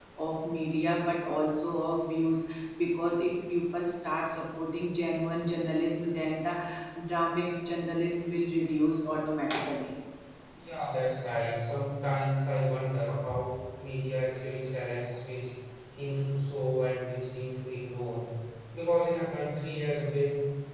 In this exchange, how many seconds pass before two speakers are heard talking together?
none

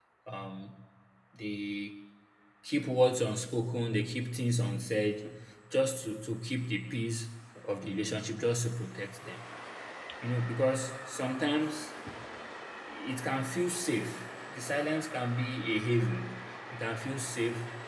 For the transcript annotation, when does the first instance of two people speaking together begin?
none

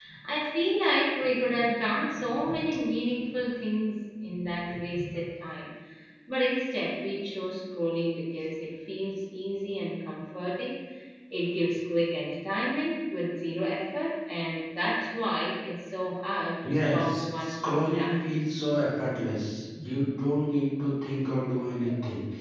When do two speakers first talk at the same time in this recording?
16.6 s

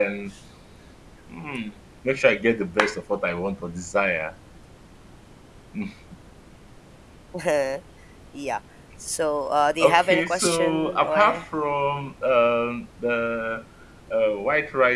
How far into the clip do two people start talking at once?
9.8 s

